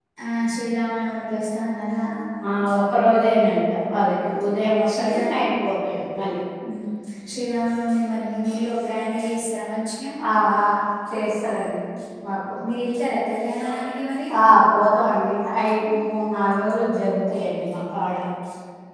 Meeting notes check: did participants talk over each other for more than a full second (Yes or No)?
No